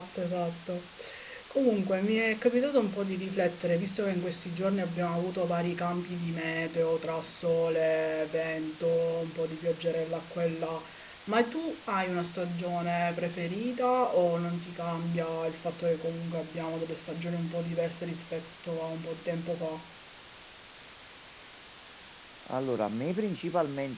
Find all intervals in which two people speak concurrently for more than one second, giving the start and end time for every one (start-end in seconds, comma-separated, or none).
none